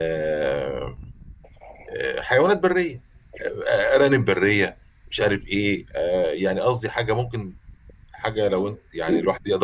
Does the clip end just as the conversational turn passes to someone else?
No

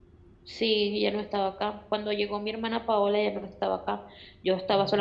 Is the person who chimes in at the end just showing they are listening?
Yes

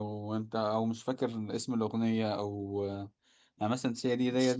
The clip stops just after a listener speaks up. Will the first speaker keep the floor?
Yes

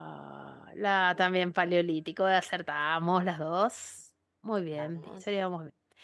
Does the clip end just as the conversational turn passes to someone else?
No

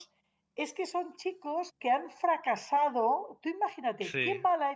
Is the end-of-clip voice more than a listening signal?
No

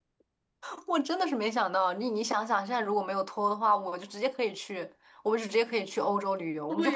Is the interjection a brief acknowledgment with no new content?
No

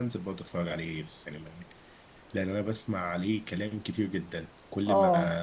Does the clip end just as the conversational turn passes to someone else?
No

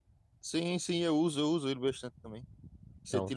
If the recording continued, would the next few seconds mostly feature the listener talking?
No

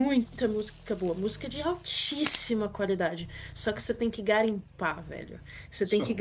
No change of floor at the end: Yes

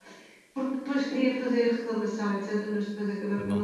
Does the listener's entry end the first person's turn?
No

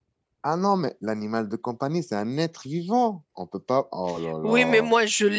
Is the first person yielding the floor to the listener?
Yes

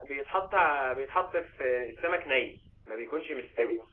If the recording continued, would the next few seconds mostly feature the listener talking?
No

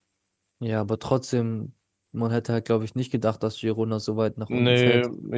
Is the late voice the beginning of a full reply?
Yes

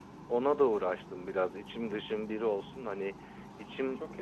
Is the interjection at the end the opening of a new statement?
No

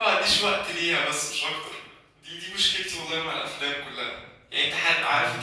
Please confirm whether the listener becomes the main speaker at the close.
No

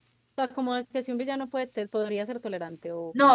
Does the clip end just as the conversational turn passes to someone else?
Yes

